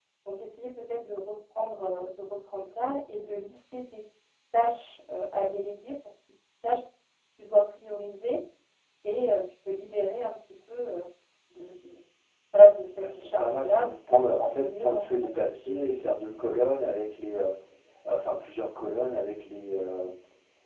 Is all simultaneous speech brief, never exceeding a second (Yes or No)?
No